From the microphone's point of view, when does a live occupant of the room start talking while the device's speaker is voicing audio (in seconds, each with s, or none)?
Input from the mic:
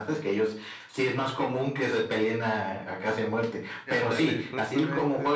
3.9 s